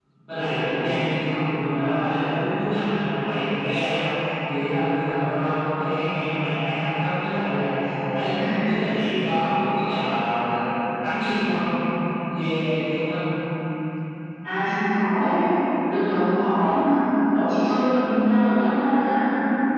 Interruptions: none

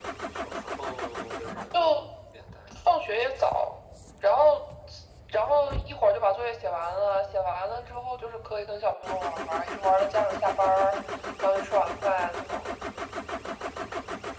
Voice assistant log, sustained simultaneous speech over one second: none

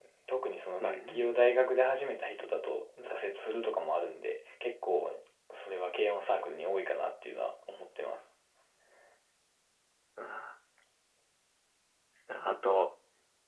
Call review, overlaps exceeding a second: none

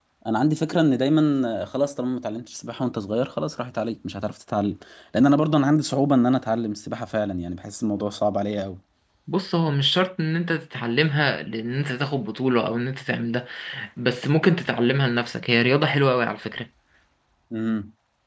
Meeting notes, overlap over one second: none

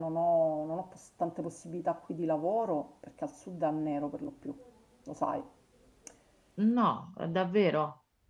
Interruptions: none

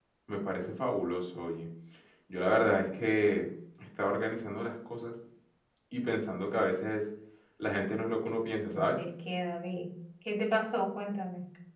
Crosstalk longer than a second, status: none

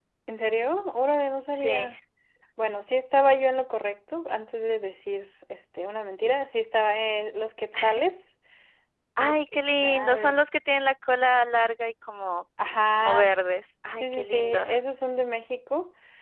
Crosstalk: present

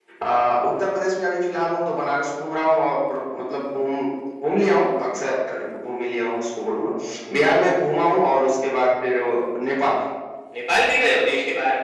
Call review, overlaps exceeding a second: none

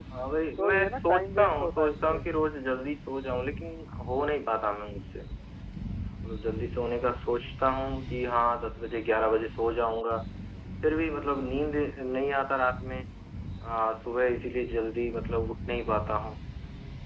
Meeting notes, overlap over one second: present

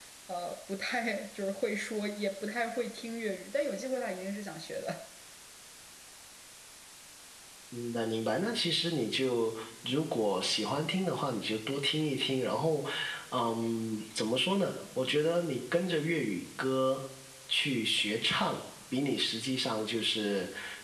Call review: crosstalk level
none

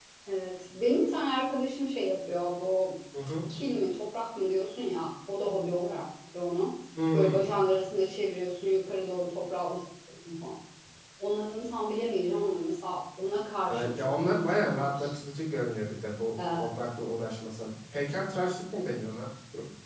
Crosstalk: present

